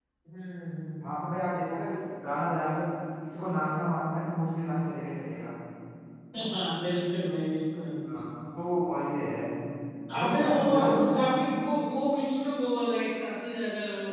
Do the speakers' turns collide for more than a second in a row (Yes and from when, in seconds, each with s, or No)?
Yes, from 10.1 s